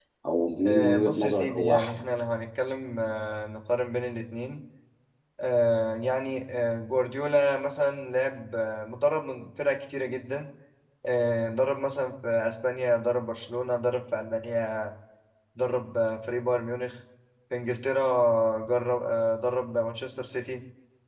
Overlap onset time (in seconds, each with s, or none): 0.7 s